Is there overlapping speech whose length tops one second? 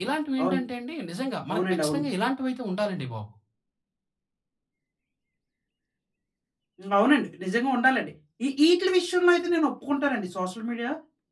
No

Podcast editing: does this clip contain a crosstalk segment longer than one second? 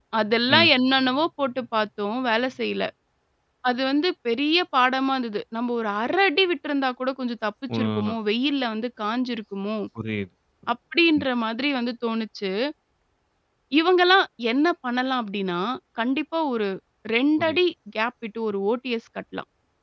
No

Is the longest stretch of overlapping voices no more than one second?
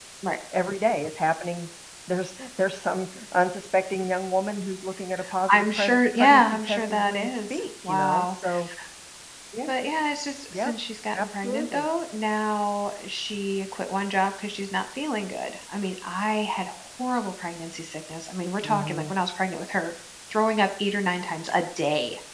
No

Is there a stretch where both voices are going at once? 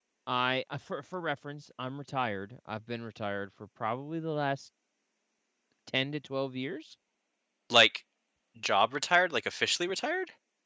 No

